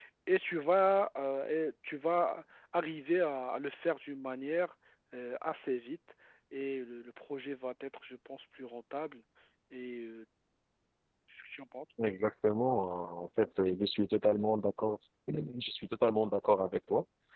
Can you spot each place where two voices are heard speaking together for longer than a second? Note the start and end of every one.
none

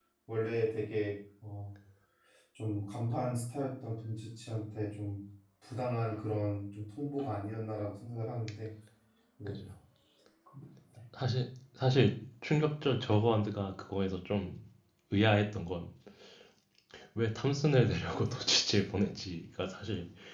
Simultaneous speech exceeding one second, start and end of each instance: none

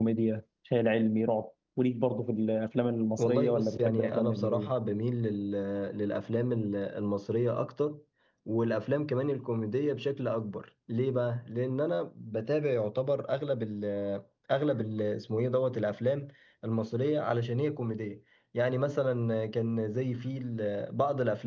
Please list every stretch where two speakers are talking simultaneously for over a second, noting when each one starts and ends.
3.2-4.7

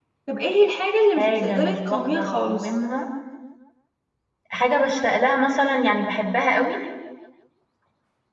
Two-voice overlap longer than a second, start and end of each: 1.2-2.7

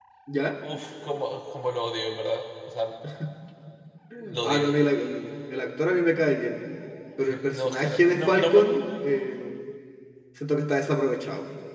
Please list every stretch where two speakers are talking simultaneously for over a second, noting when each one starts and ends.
7.3-8.6

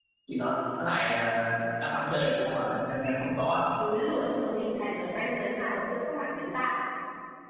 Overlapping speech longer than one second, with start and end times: none

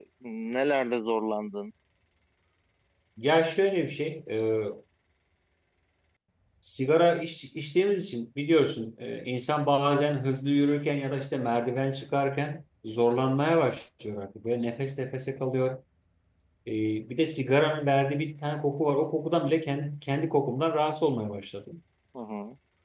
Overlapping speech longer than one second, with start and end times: none

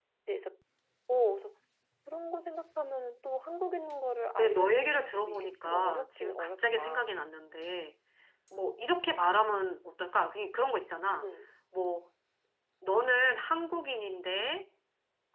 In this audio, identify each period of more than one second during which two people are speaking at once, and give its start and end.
4.4-7.0

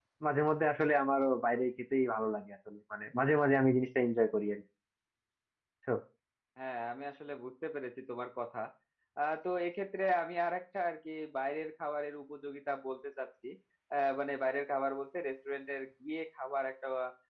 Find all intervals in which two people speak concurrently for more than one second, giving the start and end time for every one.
none

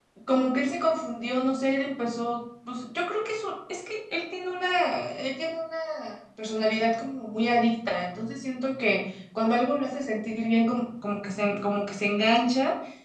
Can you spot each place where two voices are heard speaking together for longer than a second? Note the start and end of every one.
none

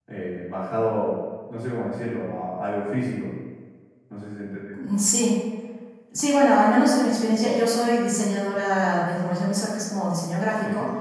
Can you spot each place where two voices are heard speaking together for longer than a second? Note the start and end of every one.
none

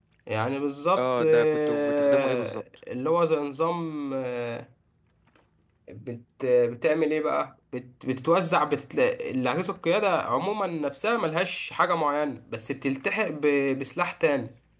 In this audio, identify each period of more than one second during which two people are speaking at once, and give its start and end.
1.0-2.6

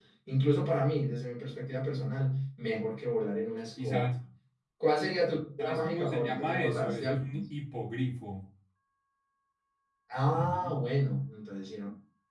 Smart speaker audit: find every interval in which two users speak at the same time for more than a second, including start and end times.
5.6-7.4

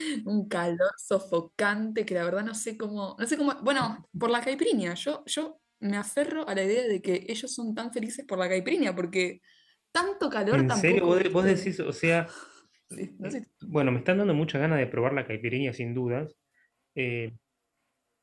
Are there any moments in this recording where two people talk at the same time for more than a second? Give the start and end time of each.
10.5-11.7

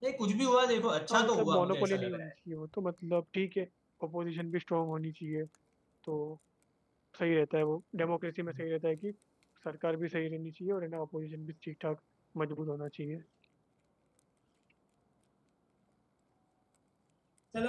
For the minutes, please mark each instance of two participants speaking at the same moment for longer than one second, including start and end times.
1.1-2.3

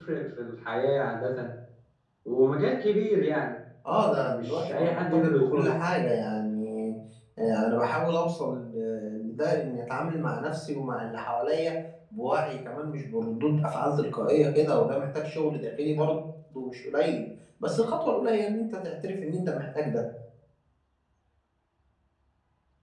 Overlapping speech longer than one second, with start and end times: 4.1-5.7

